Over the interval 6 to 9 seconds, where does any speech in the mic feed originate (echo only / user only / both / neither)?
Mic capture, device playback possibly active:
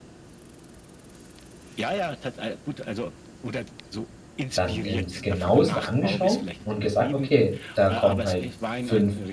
both